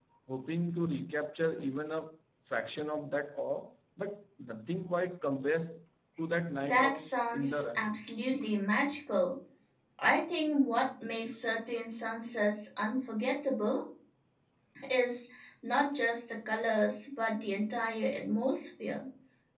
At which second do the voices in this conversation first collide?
6.6 s

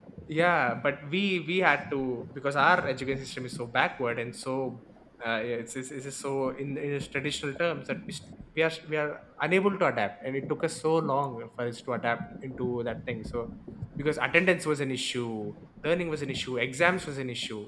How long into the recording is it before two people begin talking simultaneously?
none

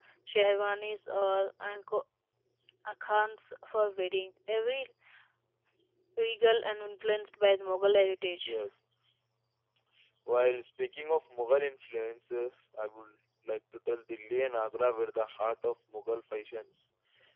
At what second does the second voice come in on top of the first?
none

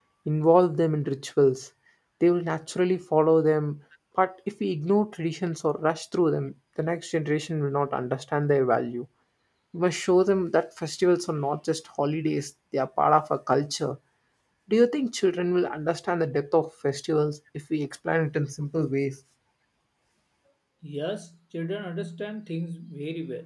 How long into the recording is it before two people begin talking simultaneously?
none

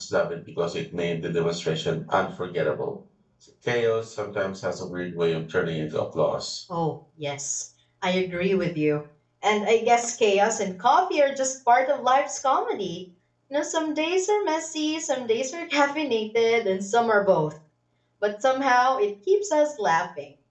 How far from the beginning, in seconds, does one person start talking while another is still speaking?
none

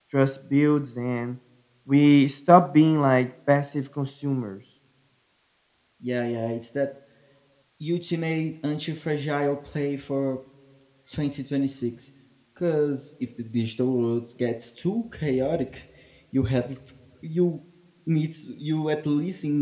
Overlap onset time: none

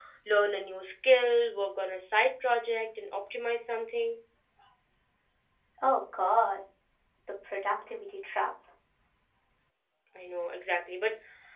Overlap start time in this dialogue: none

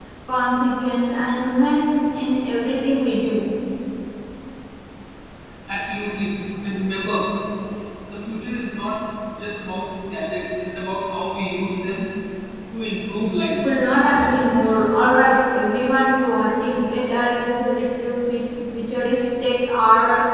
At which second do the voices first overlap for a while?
none

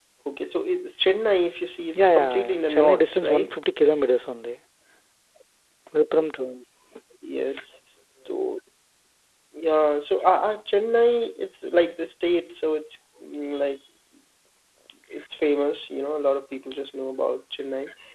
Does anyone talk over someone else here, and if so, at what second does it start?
2.0 s

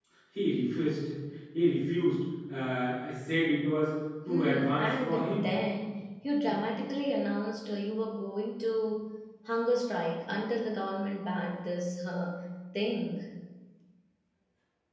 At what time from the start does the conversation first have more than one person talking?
4.3 s

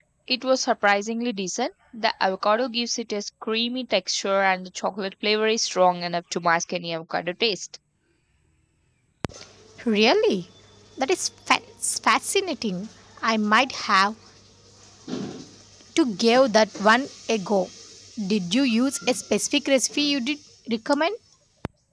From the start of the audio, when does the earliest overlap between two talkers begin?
none

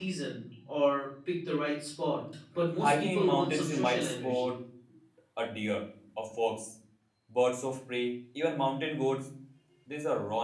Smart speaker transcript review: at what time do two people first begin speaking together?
2.8 s

